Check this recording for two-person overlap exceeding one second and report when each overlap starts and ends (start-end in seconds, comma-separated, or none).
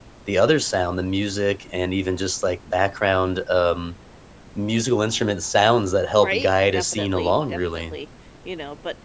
6.2-8.0